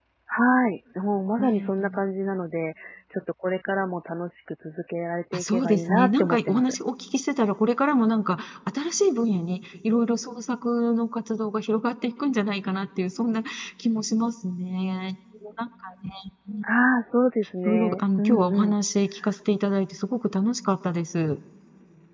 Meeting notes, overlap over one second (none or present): present